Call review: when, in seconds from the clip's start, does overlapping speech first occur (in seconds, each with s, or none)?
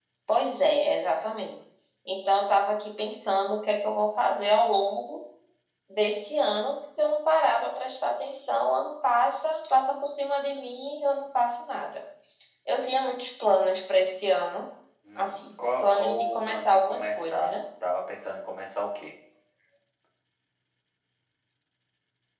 15.2 s